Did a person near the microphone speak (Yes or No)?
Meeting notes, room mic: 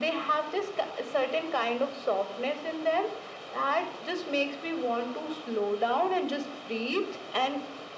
No